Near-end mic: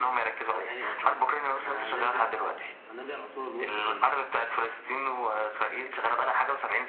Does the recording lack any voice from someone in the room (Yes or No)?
No